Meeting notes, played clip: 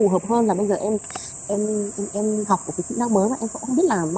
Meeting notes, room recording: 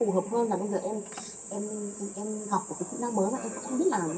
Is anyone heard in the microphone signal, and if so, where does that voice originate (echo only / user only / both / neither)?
both